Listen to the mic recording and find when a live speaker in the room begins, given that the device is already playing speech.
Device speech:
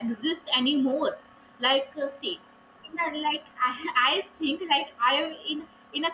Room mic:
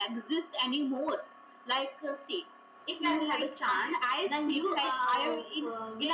2.9 s

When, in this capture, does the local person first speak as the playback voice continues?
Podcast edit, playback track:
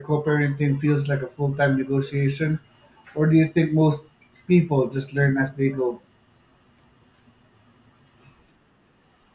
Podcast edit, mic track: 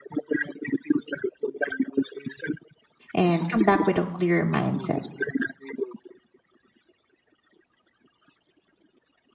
3.1 s

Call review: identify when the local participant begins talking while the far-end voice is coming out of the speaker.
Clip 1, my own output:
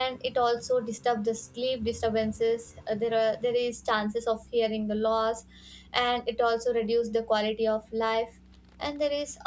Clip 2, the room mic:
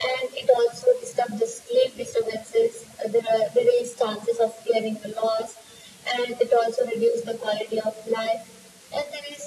none

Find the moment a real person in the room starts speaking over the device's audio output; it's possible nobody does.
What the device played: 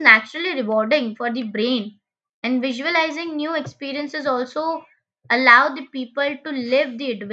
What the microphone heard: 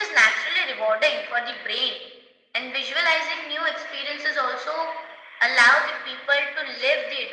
none

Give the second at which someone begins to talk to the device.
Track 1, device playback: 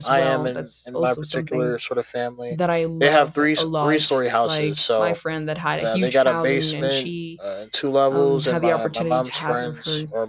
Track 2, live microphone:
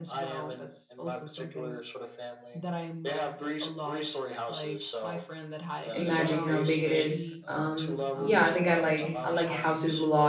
5.9 s

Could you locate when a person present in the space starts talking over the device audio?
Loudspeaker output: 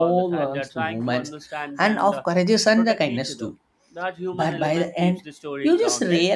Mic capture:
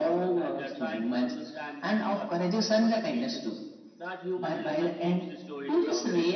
none

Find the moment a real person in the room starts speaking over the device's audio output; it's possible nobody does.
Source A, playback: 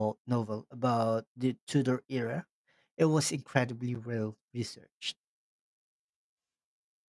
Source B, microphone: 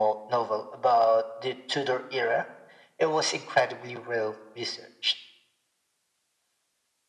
none

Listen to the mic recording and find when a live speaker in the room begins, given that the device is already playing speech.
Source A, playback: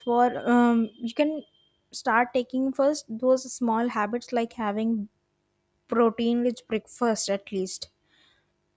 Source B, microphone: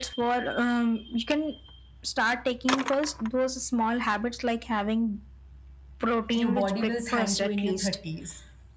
6.3 s

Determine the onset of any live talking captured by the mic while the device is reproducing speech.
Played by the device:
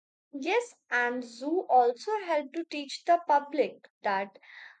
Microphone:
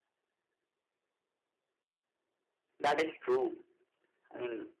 2.8 s

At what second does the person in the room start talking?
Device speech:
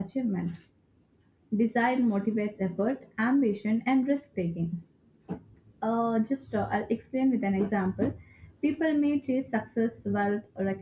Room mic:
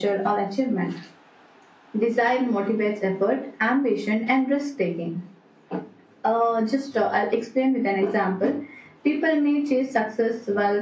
none

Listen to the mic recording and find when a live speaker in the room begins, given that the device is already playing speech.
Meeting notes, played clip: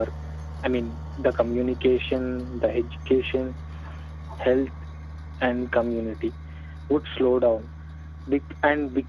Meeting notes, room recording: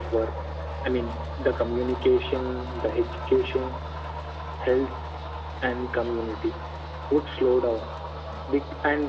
none

